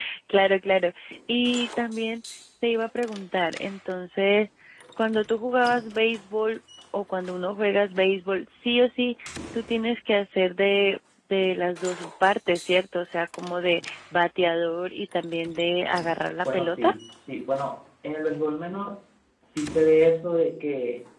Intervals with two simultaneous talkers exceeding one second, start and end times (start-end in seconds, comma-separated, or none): none